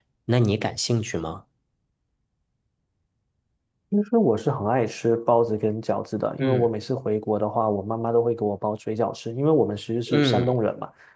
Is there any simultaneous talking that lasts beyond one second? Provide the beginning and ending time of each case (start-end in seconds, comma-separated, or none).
none